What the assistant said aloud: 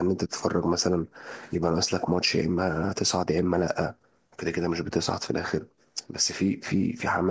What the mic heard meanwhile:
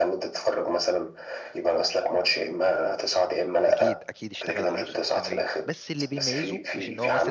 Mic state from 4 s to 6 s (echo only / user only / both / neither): both